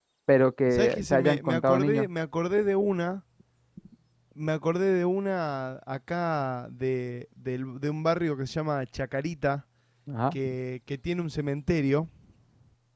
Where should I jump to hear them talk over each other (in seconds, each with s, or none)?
0.7 s